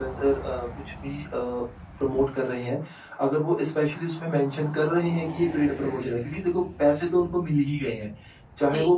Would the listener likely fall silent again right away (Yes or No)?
Yes